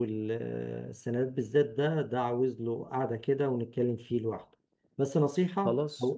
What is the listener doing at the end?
listening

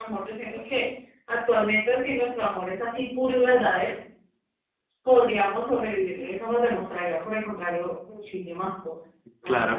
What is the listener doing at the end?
taking over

